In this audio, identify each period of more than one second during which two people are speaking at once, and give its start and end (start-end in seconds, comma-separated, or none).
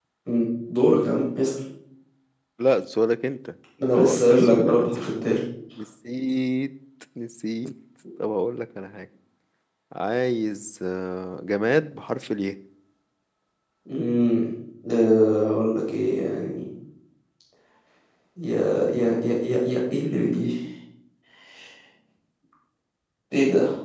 3.9-5.2